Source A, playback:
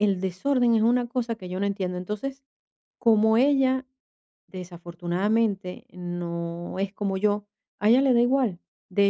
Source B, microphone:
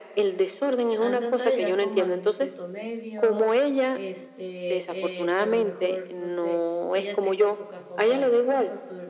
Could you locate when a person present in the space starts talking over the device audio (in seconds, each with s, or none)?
0.9 s